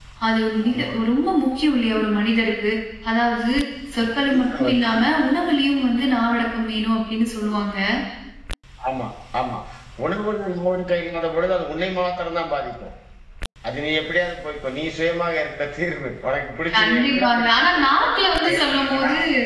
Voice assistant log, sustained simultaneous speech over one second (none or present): present